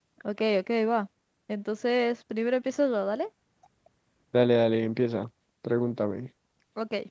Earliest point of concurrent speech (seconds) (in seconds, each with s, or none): none